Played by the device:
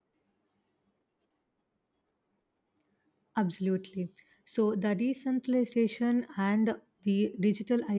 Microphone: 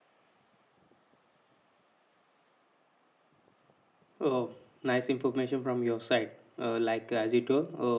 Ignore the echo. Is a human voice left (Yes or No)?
Yes